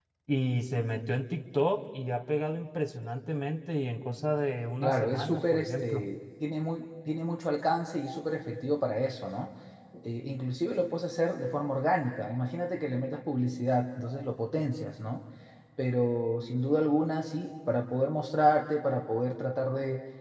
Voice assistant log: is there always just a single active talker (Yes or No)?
No